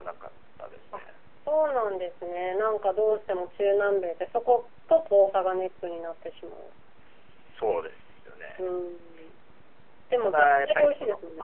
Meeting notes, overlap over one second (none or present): present